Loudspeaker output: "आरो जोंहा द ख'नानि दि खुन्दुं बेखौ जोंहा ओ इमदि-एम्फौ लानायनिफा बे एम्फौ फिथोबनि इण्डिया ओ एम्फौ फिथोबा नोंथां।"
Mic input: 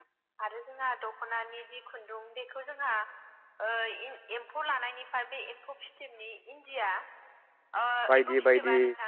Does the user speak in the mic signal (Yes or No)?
Yes